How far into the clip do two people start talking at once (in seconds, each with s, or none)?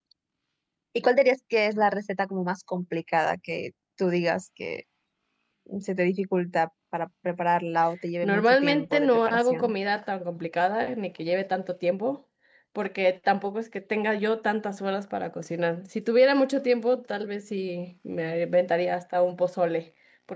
8.2 s